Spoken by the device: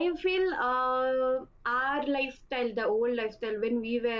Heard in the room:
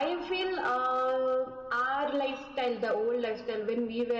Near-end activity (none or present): none